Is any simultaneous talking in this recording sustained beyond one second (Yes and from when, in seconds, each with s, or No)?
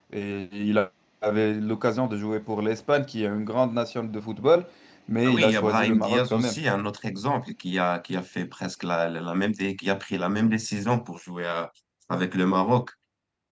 Yes, from 5.2 s